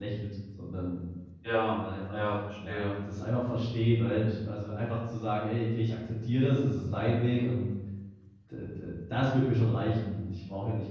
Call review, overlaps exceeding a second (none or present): none